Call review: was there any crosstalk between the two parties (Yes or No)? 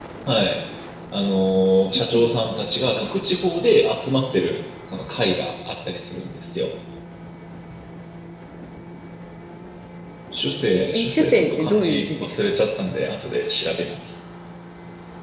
Yes